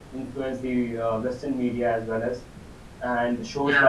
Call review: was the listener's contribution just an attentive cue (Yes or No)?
Yes